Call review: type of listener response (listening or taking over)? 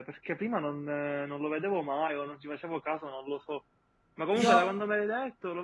listening